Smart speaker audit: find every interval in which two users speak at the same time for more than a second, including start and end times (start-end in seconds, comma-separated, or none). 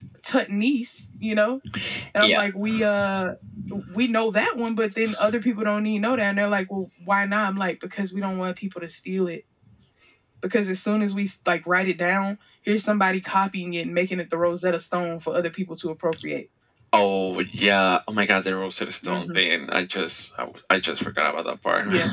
none